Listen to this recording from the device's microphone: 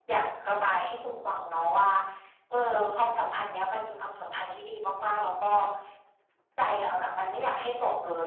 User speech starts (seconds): none

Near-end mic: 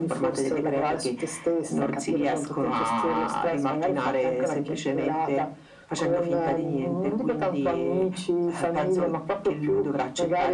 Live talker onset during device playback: none

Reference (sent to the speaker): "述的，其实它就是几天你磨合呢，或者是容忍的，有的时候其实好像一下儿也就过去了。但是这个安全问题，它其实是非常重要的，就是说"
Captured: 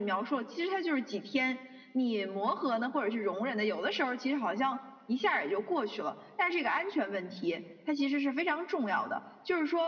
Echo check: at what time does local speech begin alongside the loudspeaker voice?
none

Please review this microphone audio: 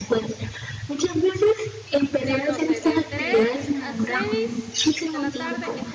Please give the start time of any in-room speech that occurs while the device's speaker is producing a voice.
2.0 s

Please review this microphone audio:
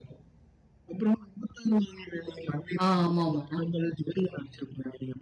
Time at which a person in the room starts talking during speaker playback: 2.8 s

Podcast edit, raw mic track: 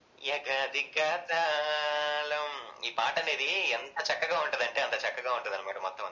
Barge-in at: none

